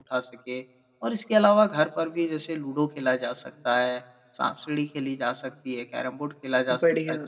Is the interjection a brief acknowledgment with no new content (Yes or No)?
Yes